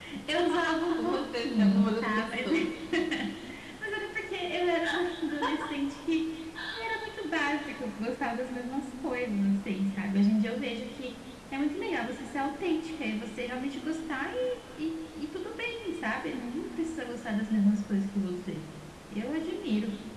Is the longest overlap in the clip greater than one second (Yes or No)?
Yes